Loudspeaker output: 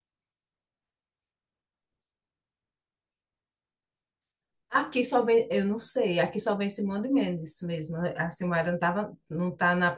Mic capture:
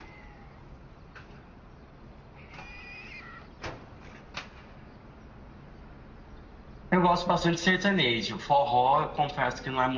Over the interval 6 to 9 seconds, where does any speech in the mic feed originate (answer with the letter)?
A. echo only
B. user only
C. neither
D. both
B